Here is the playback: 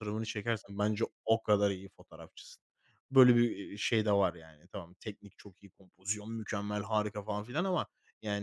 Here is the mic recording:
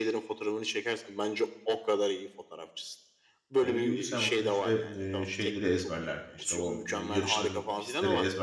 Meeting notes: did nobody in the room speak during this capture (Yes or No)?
No